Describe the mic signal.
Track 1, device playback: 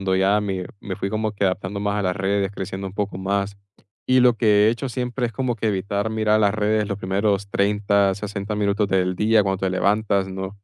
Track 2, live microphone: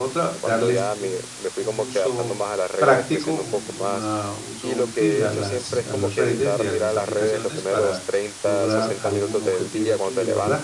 both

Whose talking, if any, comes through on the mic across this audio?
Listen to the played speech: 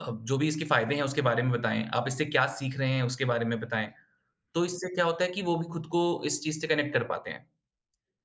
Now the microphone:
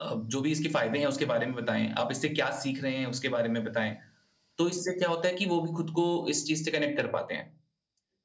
echo only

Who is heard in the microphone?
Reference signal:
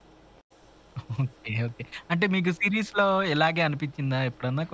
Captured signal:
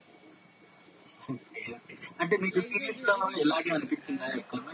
both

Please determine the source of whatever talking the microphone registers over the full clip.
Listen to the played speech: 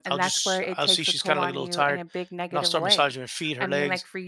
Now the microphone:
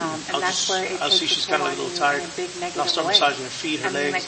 echo only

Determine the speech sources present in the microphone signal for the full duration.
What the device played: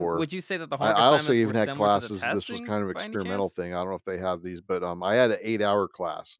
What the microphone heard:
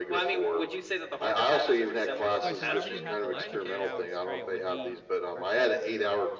both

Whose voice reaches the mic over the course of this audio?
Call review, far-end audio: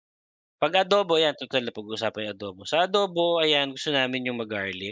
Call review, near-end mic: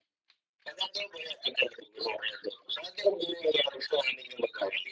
echo only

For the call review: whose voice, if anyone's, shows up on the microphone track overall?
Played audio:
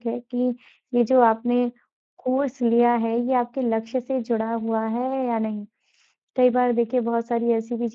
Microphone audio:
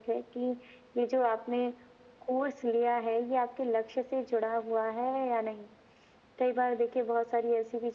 echo only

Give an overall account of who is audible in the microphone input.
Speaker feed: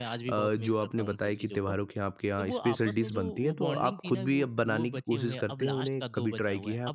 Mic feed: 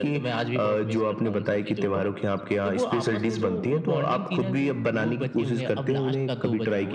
echo only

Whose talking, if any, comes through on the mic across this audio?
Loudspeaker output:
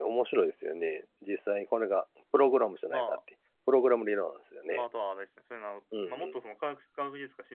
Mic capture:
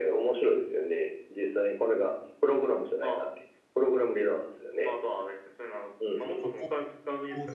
both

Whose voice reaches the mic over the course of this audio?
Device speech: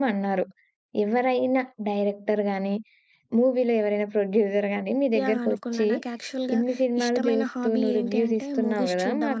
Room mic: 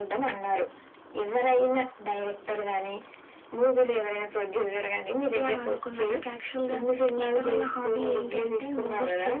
echo only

